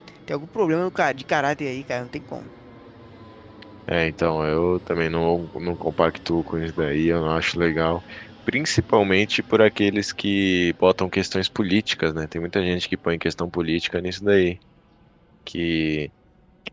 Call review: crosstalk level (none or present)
none